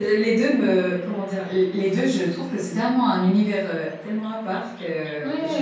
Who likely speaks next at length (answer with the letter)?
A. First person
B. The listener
B